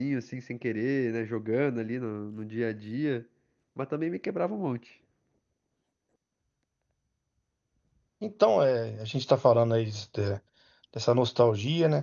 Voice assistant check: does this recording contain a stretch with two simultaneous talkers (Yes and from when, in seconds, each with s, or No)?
No